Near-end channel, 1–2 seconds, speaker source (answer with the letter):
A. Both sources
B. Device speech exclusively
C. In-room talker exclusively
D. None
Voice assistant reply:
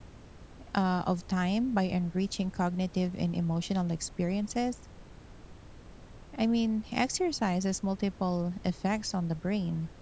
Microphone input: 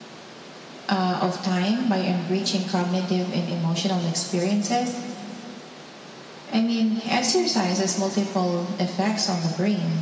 B